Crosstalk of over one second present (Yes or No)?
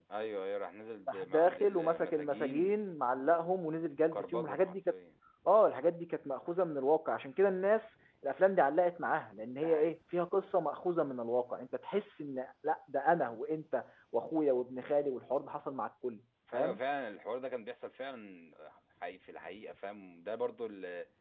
Yes